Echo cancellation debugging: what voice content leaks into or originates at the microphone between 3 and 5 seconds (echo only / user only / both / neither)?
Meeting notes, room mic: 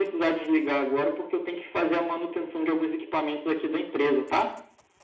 echo only